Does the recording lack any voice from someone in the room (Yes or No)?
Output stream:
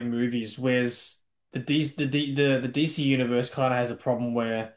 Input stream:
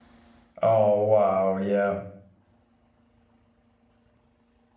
No